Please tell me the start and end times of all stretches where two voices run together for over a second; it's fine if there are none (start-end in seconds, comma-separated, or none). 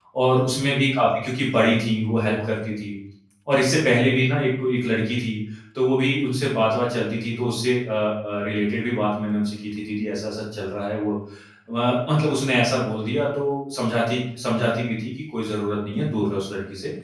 none